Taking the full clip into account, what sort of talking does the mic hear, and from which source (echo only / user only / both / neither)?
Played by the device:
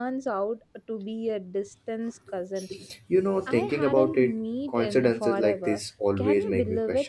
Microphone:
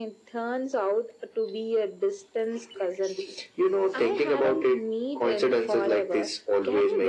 echo only